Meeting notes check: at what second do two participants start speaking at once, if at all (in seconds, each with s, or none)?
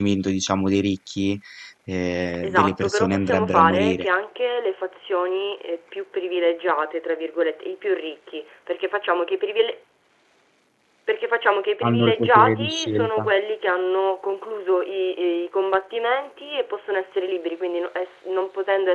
2.4 s